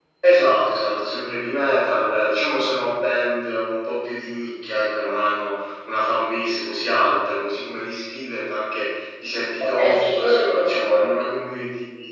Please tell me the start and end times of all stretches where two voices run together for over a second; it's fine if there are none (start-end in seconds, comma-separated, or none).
9.6-11.1